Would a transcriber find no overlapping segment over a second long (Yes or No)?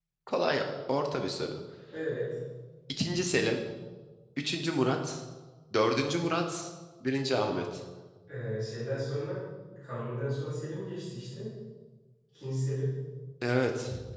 Yes